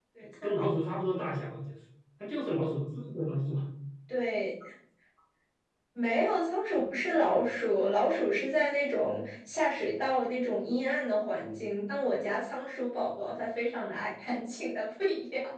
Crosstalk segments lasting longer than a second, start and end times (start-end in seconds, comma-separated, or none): none